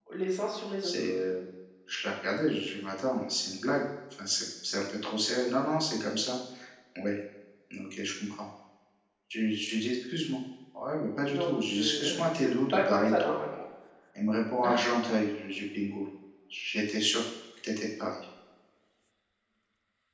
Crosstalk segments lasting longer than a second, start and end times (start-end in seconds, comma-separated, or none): 11.3-13.3